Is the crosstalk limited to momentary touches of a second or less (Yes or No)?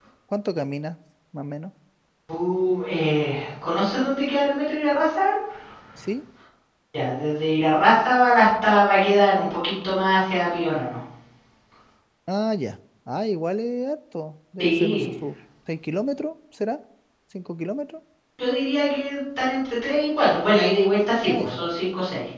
Yes